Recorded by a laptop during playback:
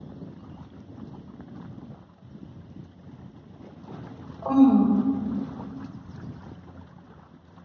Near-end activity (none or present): present